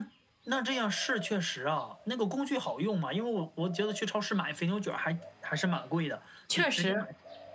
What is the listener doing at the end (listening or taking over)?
listening